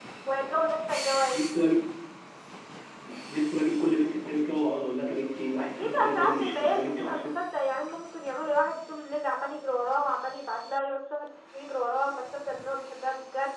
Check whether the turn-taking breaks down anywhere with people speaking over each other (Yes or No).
Yes